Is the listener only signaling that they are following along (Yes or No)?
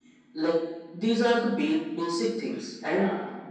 Yes